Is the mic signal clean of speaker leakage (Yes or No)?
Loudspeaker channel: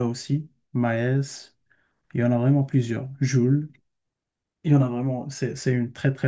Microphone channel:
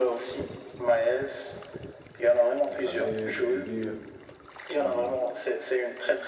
No